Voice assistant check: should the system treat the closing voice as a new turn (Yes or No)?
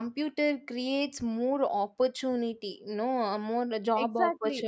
Yes